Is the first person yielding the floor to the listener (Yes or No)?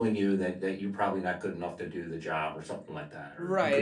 Yes